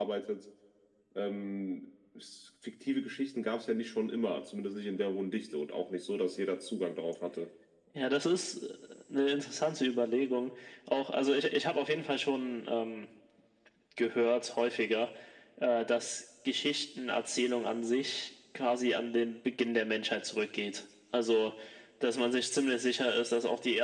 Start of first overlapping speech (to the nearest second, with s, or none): none